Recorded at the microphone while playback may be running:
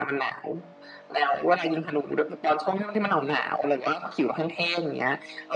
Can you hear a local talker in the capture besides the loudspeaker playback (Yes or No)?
No